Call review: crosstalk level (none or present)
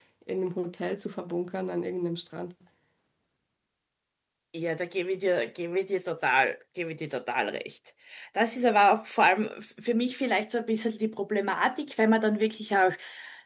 none